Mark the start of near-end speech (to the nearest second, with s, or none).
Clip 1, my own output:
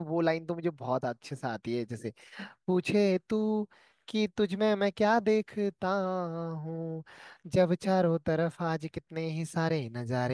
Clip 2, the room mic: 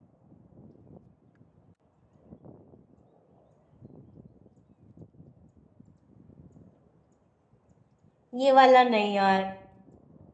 8 s